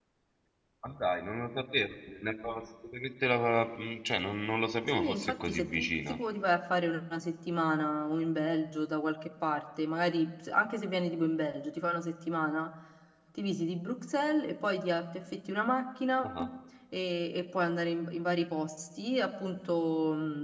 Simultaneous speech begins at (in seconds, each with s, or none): 4.9 s